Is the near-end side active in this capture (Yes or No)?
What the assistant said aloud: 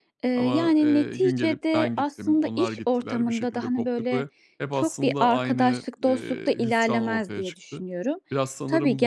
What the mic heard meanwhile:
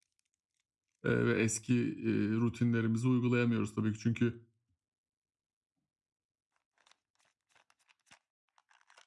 Yes